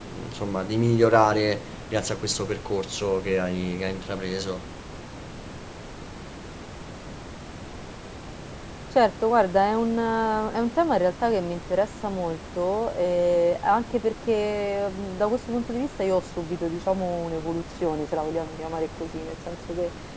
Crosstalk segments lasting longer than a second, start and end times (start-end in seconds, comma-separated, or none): none